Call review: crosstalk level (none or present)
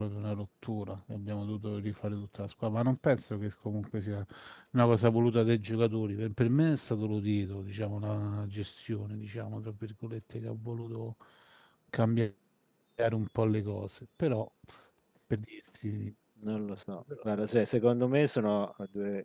none